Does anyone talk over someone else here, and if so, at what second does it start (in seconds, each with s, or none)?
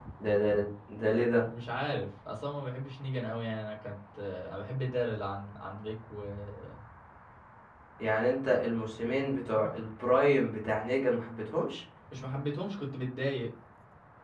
none